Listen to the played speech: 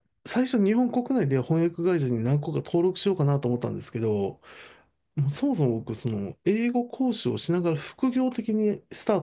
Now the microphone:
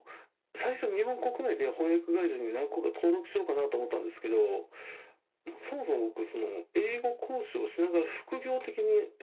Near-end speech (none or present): none